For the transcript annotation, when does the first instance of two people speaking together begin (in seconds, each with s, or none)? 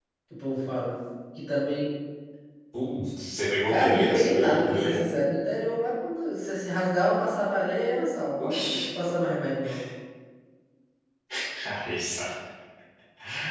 3.7 s